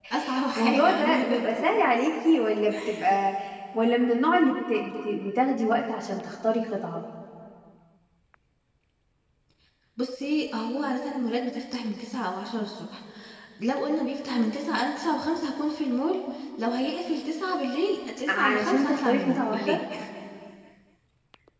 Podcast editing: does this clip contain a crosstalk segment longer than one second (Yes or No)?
Yes